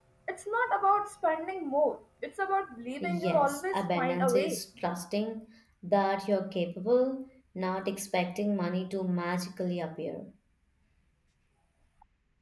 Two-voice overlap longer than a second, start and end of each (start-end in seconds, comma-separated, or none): 3.0-4.6